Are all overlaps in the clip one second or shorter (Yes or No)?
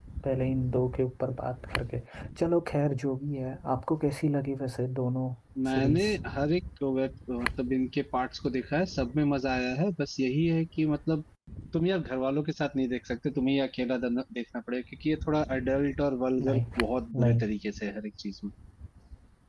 Yes